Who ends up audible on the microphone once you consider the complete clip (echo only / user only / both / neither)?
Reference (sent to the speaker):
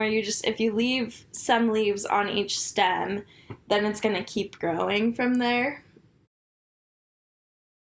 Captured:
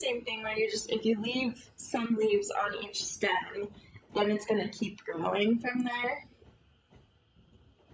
echo only